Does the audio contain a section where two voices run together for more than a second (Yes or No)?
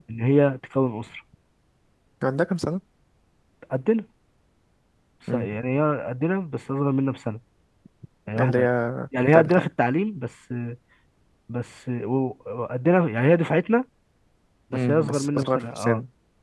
Yes